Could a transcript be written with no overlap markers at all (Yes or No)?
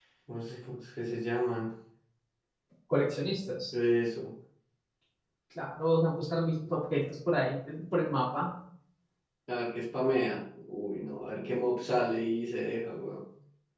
Yes